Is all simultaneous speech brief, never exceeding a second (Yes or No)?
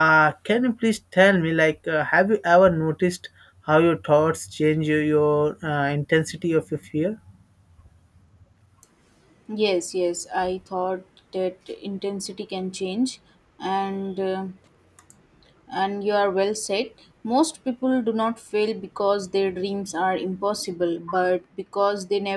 Yes